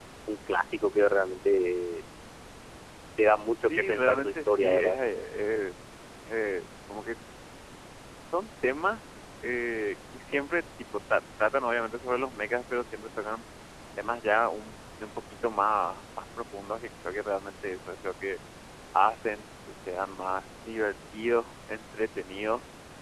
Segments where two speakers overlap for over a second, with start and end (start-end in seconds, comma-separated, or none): 3.6-5.0